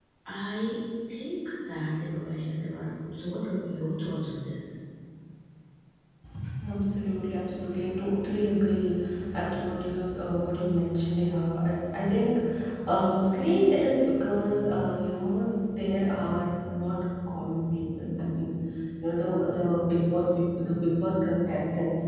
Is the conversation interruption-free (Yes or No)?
Yes